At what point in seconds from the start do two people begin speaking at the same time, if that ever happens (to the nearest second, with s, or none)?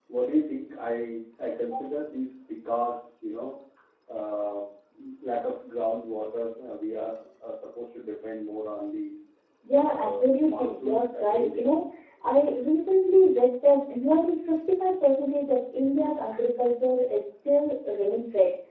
10 s